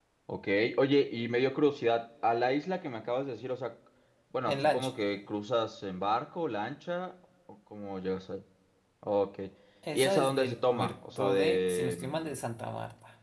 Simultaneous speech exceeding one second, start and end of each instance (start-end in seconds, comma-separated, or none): 9.9-12.3